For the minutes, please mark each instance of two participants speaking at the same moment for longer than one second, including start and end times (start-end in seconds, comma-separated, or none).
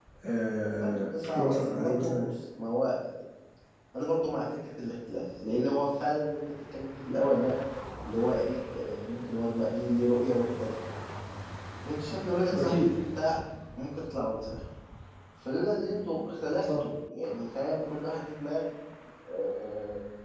0.8-2.3